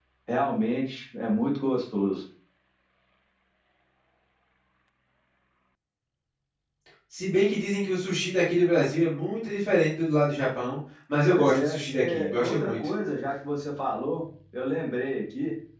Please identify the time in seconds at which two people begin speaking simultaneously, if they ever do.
11.3 s

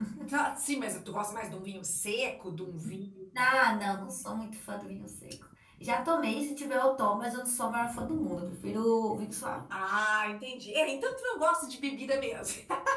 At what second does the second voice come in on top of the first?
none

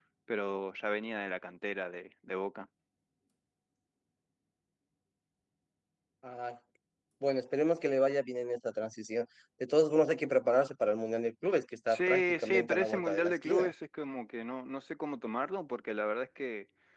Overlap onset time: 11.9 s

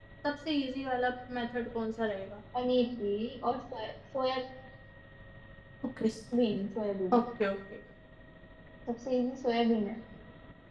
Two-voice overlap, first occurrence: none

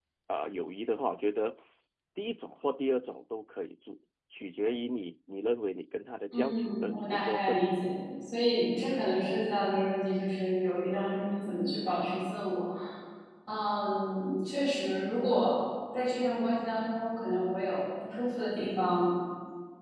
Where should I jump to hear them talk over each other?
6.3 s

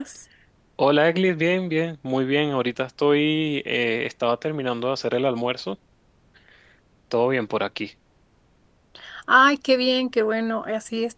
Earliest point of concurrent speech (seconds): none

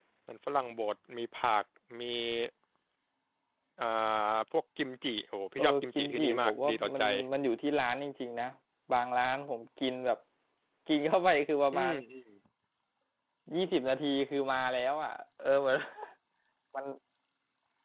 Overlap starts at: 5.6 s

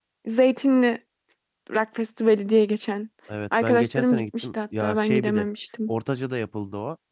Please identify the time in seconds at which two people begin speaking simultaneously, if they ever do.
3.6 s

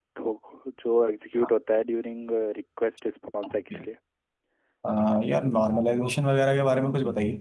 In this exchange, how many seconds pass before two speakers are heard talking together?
none

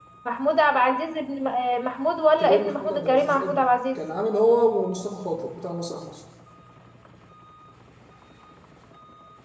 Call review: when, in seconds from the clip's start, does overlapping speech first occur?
2.4 s

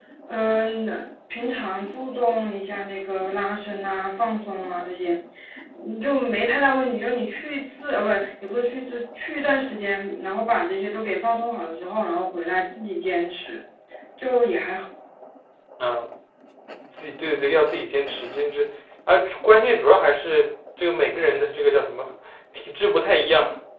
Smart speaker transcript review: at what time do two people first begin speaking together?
none

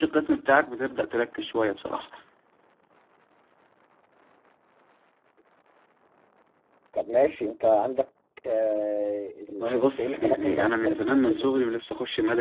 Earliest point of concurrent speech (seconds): 9.5 s

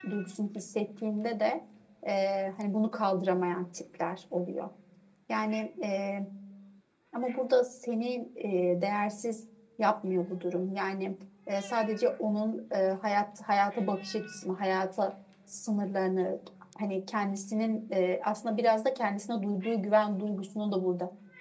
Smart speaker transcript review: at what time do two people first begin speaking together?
none

